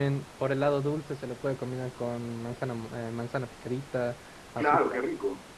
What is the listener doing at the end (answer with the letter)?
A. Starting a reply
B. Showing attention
A